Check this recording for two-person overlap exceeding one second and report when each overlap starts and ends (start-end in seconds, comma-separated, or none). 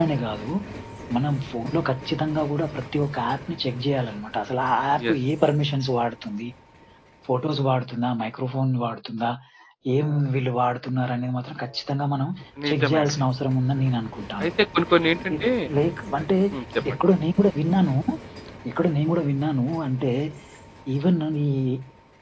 none